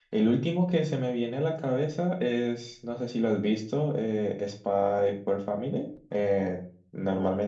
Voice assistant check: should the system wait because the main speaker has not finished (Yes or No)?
Yes